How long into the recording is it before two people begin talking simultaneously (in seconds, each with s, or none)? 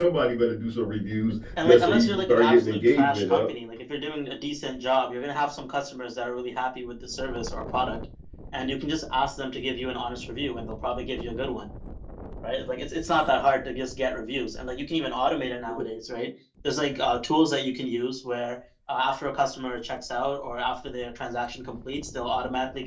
1.6 s